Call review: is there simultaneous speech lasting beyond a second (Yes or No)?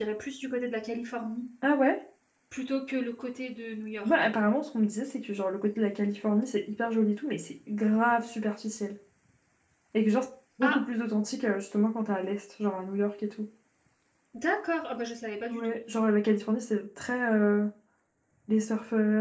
No